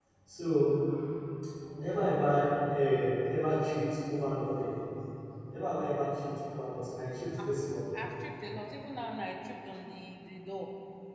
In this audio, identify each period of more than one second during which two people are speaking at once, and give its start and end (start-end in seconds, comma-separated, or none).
none